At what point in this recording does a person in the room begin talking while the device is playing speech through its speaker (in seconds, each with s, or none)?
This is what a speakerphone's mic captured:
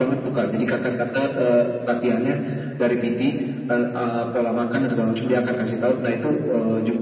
none